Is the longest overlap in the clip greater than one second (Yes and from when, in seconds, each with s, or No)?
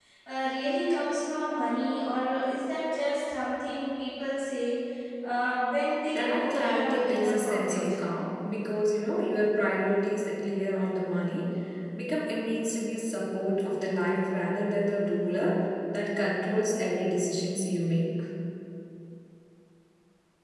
Yes, from 6.1 s